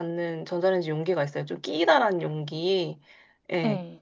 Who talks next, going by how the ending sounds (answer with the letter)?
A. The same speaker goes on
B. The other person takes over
A